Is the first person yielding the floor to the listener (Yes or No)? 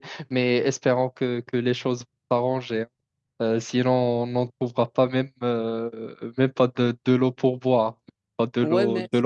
Yes